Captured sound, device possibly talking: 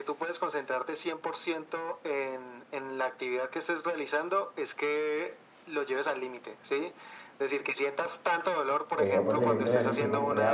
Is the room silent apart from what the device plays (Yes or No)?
No